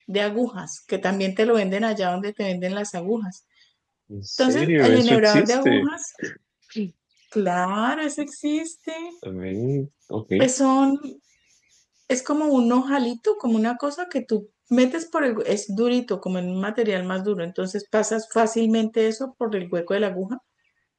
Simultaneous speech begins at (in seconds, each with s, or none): 4.4 s